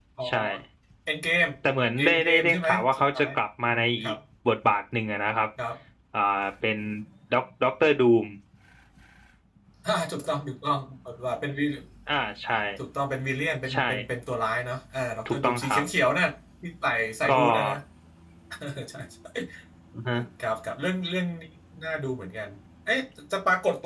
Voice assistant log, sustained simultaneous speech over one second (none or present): present